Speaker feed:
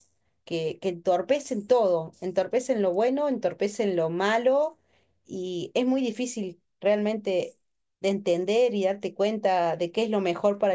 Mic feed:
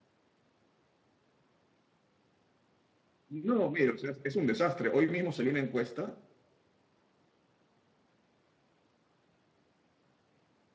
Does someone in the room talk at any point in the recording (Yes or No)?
Yes